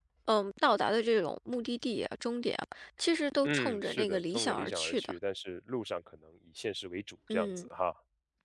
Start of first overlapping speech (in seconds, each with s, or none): 3.4 s